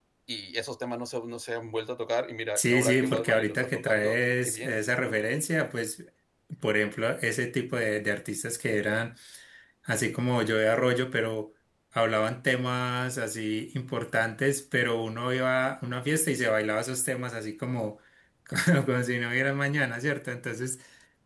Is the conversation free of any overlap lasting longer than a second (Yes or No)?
No